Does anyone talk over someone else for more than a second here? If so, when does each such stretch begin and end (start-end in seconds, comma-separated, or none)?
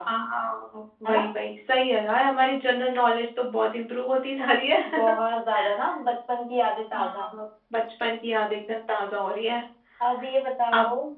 none